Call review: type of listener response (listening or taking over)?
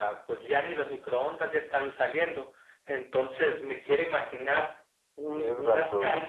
listening